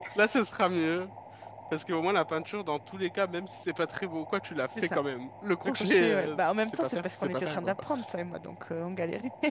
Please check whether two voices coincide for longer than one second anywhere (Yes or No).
Yes